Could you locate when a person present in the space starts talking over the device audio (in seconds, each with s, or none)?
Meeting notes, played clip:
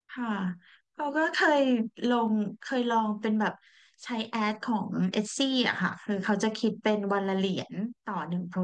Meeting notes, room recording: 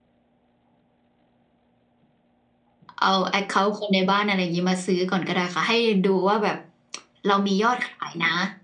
3.0 s